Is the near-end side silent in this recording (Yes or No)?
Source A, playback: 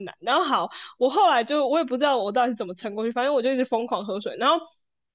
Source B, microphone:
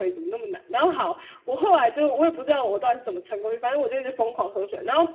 Yes